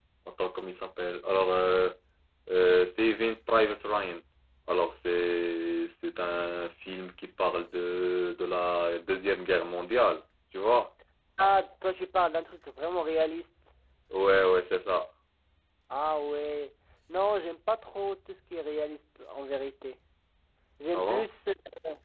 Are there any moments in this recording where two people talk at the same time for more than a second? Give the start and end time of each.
none

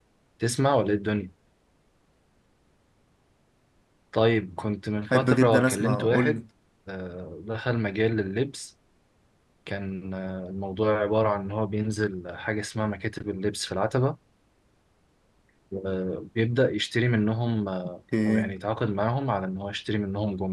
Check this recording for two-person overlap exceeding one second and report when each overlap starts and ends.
5.1-6.4

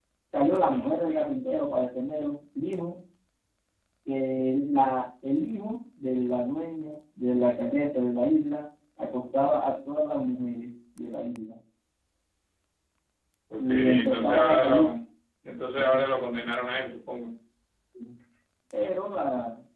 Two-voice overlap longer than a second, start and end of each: 13.6-14.9

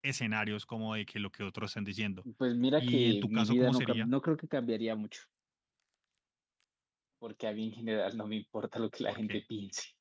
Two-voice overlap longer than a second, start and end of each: 2.8-4.1

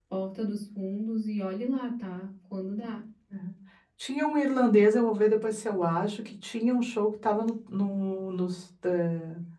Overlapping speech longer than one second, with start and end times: none

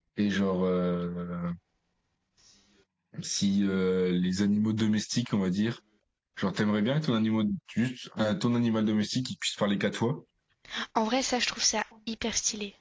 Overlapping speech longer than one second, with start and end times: none

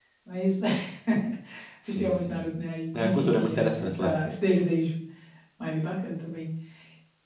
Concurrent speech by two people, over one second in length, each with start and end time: 3.0-4.2

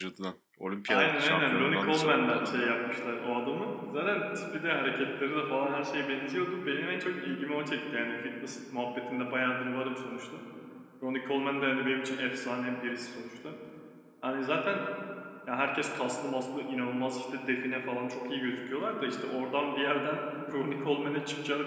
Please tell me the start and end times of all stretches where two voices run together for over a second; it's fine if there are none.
0.9-2.7

